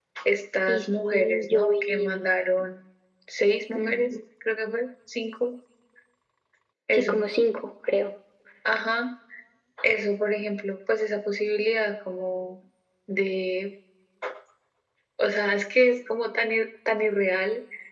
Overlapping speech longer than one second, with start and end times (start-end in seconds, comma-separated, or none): 0.7-2.3